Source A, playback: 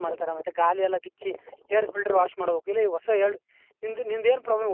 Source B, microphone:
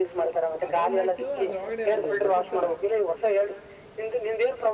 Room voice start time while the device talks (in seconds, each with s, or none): 0.7 s